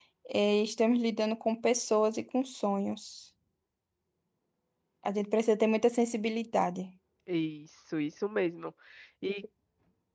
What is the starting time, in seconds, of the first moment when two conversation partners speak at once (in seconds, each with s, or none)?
none